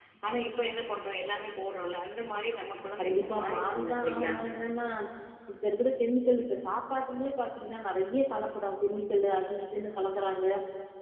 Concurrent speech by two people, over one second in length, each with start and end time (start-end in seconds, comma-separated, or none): 3.0-4.3